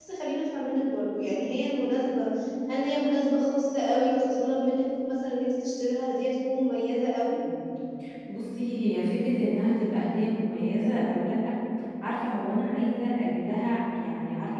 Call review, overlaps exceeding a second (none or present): none